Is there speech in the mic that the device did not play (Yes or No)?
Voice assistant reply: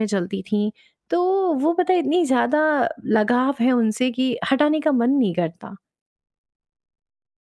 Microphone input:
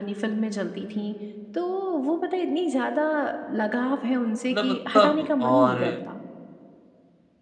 Yes